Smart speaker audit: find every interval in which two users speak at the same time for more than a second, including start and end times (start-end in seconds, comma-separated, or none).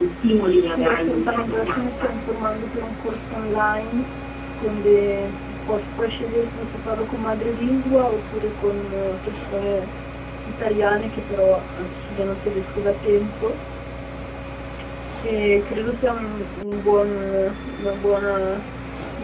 0.6-2.1